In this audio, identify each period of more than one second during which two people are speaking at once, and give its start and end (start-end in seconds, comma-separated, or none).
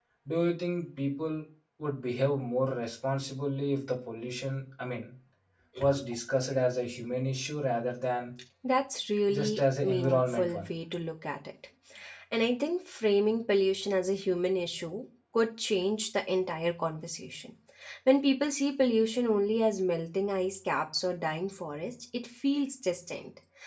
9.3-10.7